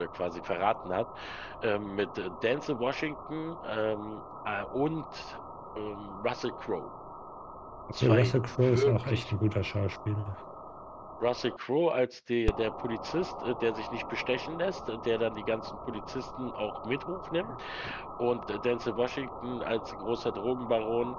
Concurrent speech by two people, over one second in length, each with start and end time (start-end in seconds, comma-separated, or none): 8.0-9.3